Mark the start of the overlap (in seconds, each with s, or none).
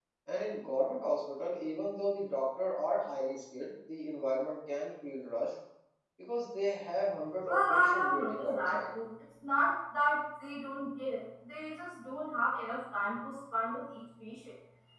7.4 s